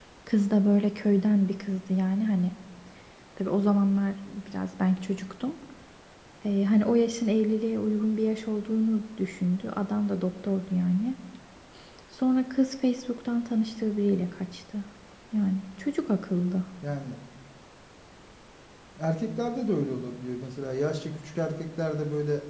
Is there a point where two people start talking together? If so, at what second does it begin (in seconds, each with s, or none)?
none